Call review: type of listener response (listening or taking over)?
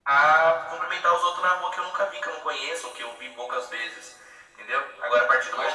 listening